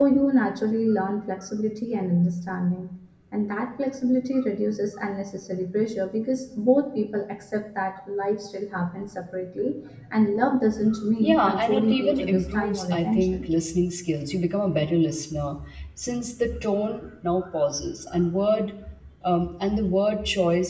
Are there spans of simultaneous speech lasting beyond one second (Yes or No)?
Yes